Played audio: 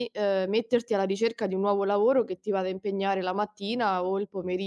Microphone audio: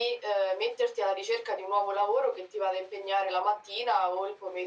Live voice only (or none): none